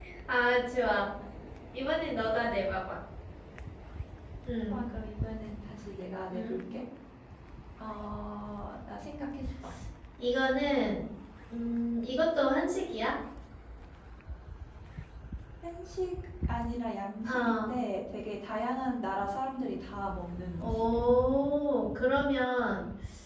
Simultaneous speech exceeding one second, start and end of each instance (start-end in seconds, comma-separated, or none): none